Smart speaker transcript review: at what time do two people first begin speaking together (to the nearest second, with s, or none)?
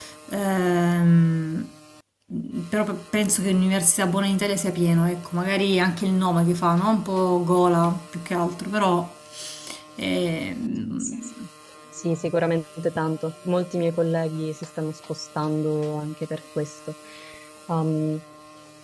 none